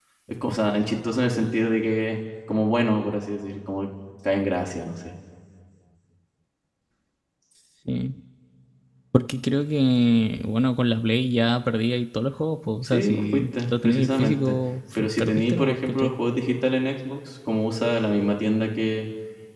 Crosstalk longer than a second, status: present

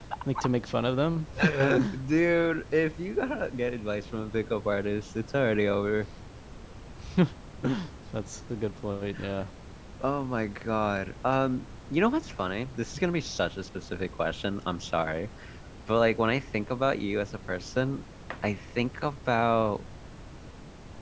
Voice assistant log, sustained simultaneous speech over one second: none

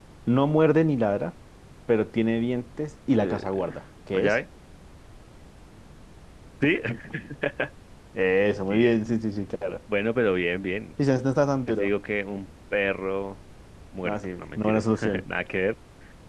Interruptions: present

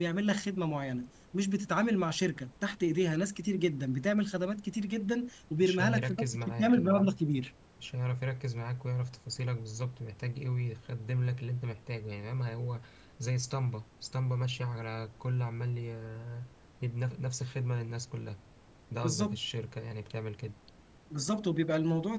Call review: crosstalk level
present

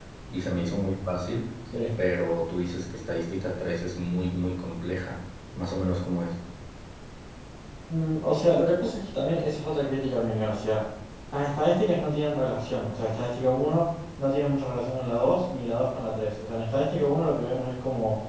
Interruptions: none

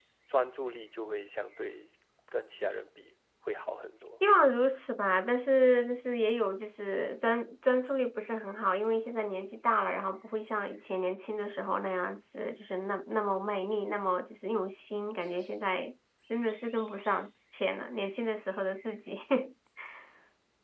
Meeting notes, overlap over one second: none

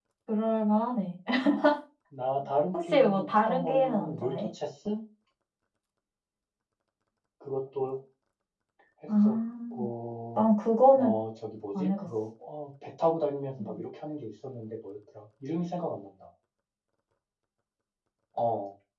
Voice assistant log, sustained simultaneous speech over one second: present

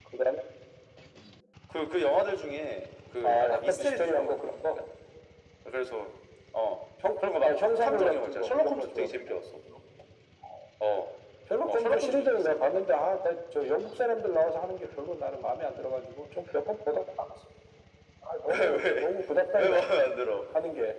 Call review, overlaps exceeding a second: present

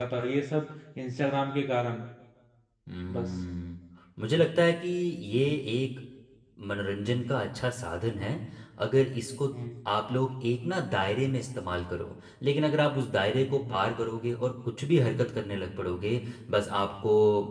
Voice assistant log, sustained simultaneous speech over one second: none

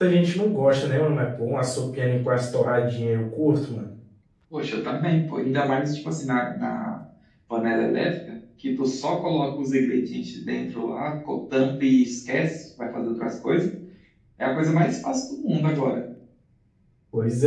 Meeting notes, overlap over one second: none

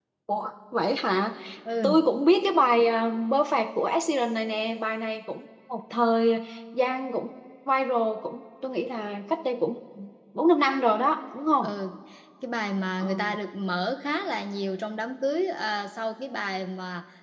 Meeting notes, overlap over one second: none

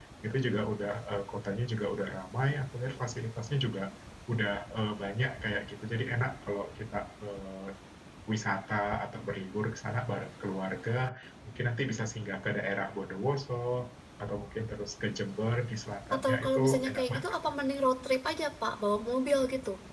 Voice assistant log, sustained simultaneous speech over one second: present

